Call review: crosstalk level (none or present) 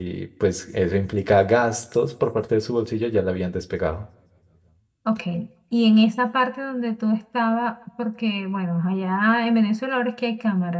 none